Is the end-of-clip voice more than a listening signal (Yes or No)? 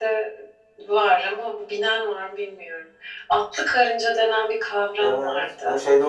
Yes